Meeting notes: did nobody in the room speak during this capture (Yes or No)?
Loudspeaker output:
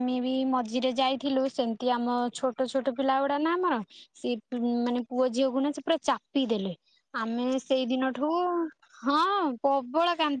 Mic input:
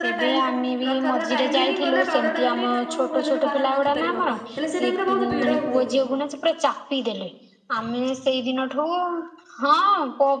No